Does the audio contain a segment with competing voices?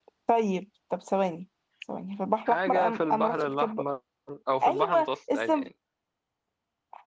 Yes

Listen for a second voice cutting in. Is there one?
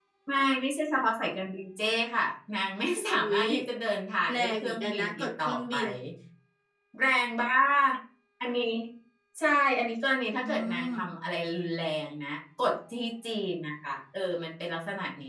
Yes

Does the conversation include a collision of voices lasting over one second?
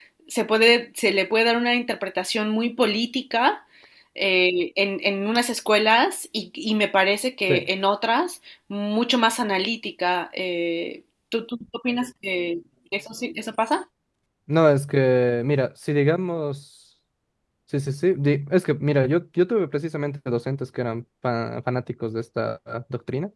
No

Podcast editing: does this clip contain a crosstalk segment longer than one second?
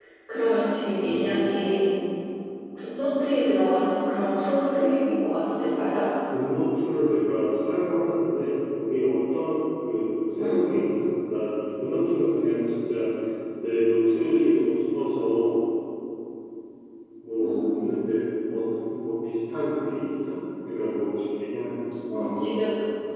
No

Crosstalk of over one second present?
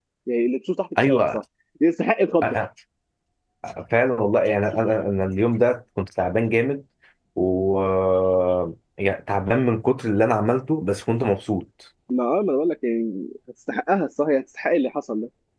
No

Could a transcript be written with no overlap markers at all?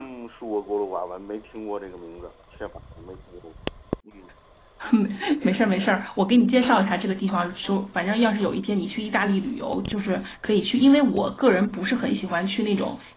Yes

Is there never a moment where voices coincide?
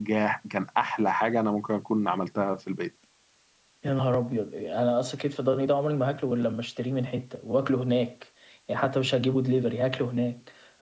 Yes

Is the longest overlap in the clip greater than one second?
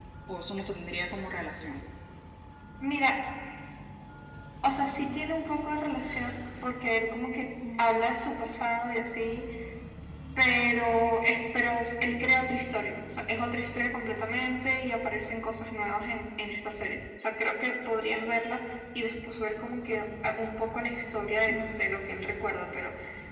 No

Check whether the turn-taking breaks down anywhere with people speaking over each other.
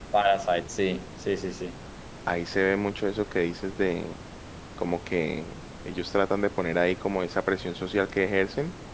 No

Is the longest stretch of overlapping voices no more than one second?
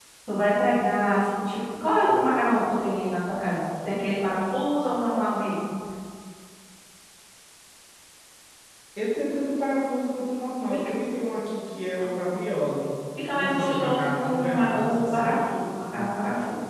No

